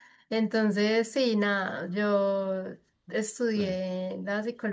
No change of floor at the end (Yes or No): Yes